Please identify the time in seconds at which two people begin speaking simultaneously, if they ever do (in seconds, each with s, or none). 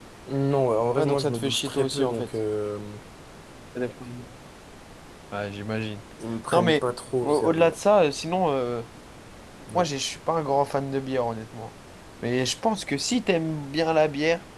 1.0 s